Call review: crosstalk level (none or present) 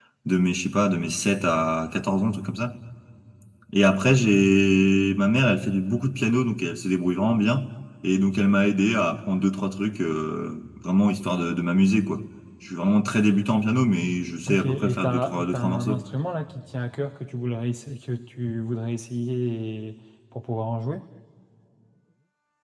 present